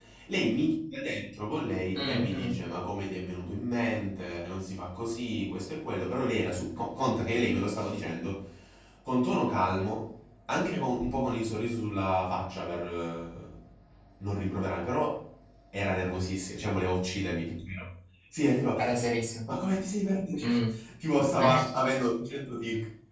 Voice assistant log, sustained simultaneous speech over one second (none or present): none